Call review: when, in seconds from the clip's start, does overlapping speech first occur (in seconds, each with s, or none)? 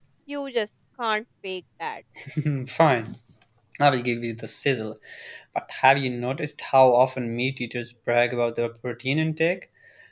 none